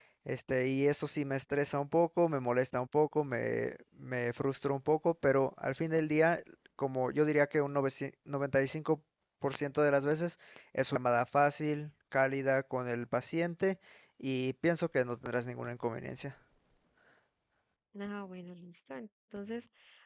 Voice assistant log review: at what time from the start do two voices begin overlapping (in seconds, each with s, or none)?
none